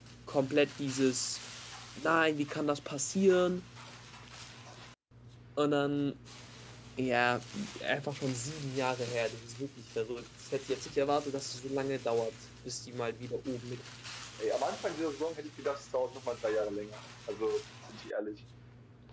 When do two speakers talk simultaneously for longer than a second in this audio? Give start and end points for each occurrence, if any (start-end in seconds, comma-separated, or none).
none